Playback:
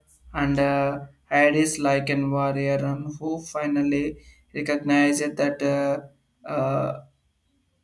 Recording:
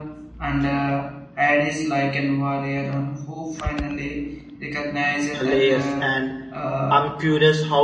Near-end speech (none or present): present